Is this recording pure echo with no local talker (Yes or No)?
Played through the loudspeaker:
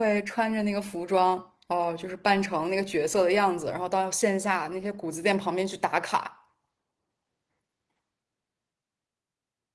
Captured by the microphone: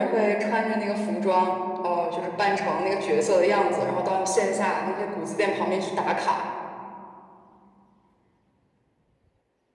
Yes